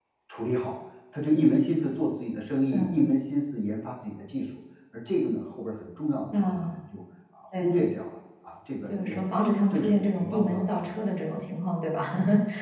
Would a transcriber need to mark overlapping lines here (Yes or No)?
Yes